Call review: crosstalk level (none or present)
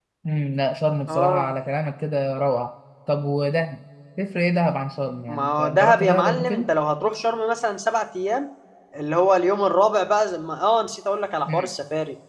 present